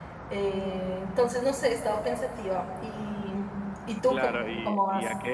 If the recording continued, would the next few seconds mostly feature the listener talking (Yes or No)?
Yes